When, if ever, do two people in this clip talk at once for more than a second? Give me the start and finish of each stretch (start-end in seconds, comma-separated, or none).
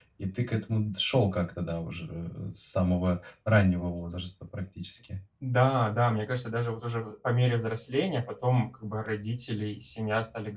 none